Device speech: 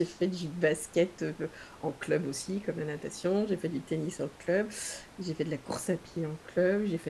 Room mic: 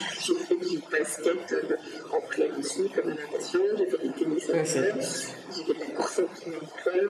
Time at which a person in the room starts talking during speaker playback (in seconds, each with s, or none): 4.5 s